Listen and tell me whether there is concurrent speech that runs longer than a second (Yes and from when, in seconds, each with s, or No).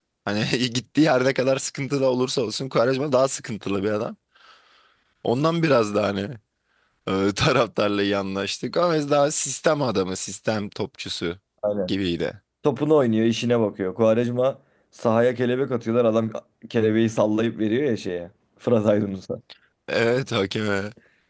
No